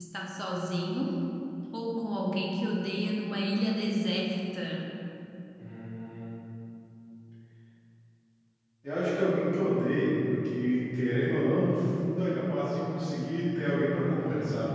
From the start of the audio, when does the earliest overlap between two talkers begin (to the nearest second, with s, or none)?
none